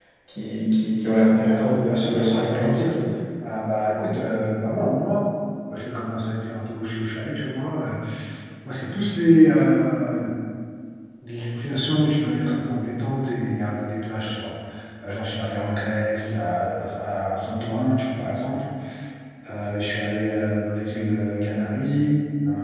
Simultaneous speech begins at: 1.4 s

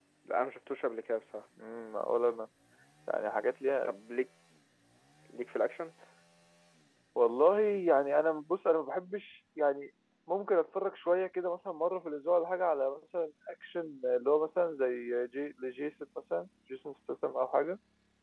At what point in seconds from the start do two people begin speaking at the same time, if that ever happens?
none

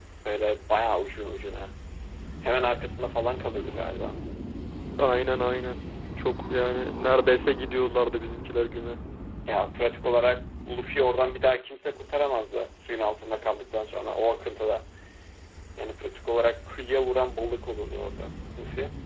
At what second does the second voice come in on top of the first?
none

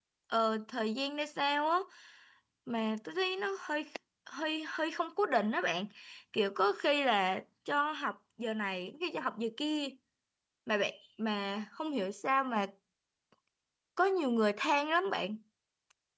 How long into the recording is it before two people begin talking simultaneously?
none

